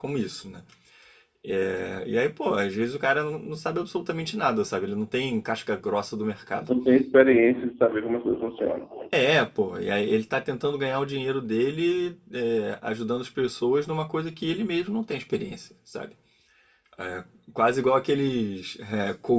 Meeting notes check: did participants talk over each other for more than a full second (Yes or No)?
No